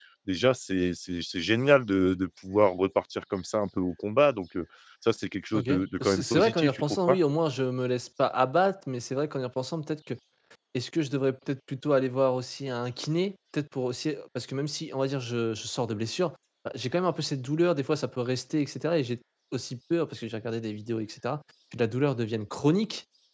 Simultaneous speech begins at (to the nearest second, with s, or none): 6 s